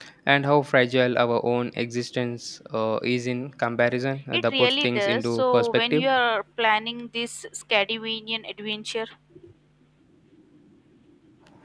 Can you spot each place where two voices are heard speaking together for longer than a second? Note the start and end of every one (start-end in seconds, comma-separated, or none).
4.3-6.1